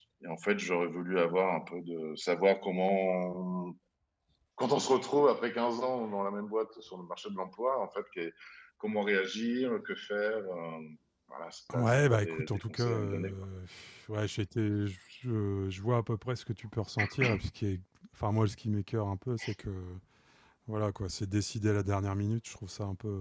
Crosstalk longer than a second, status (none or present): present